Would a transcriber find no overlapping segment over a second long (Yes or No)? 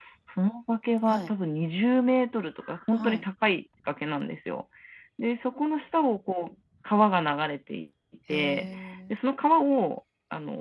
Yes